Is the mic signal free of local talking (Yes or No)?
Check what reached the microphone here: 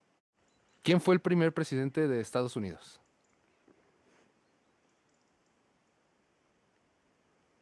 No